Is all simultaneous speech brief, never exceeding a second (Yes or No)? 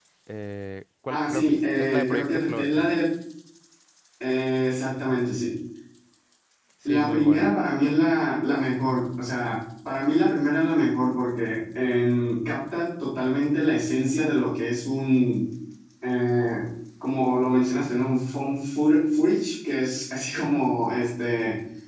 No